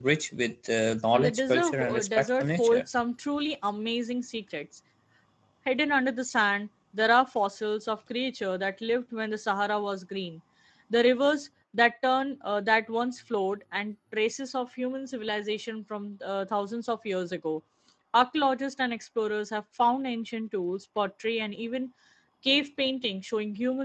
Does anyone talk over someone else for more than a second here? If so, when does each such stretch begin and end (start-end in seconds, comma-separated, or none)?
1.1-2.8